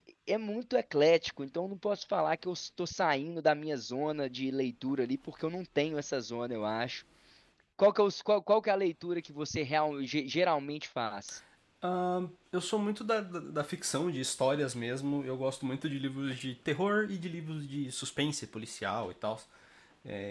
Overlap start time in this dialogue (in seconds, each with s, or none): none